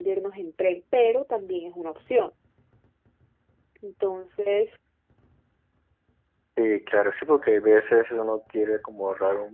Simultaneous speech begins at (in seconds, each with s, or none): none